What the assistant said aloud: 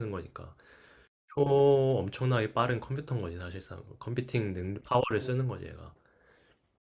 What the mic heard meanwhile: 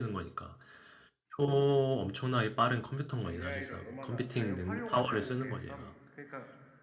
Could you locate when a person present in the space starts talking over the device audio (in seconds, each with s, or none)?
3.2 s